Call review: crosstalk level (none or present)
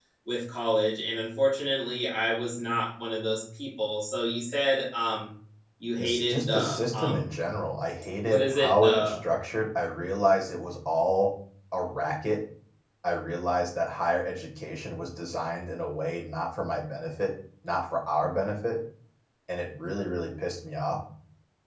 present